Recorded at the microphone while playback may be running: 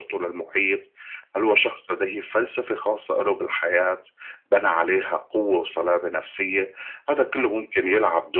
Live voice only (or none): none